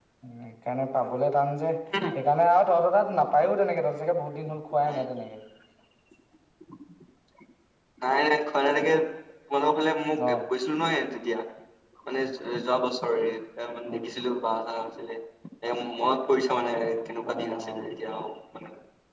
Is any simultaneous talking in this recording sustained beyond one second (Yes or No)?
No